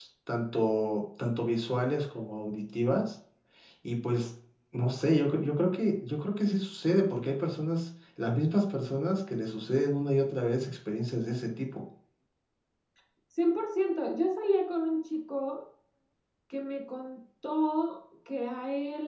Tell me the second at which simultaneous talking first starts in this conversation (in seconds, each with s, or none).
none